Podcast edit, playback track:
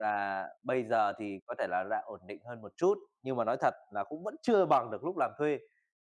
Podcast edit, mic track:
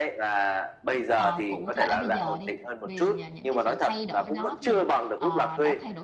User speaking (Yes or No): Yes